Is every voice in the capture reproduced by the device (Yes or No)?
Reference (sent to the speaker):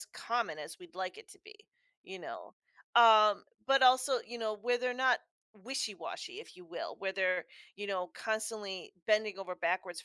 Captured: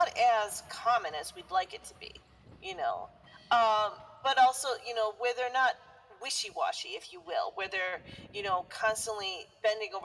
Yes